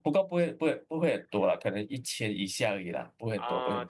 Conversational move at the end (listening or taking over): taking over